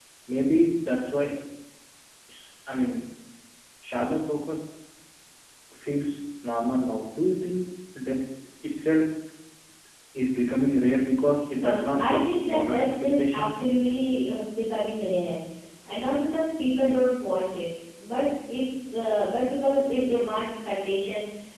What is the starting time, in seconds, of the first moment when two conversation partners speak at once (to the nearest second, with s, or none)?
12 s